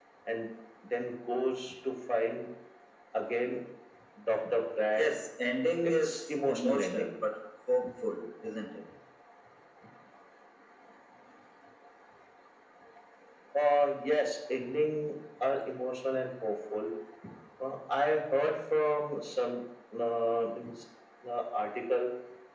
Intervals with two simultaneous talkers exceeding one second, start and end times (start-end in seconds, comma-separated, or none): 5.8-7.1